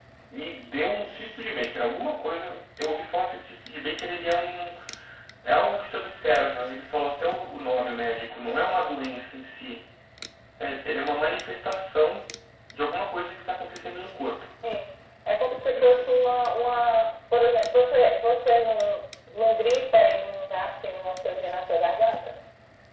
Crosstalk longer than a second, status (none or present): none